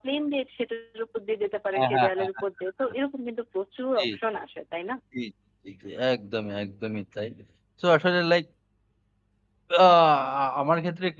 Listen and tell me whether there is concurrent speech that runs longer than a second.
Yes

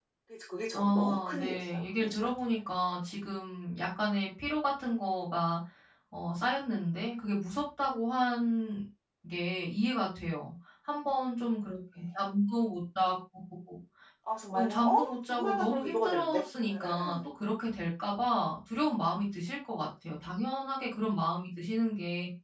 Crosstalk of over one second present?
Yes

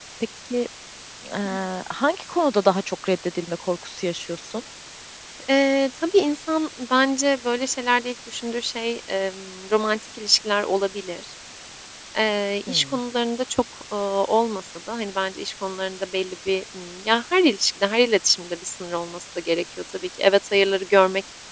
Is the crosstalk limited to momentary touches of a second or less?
Yes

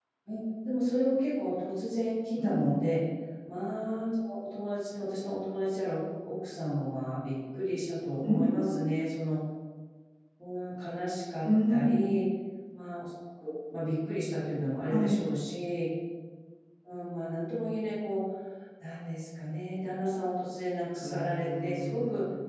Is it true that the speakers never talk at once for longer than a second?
No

